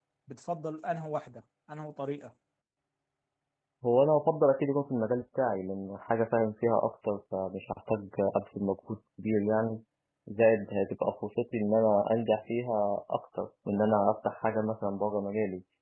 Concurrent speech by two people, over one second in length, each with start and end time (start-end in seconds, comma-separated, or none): none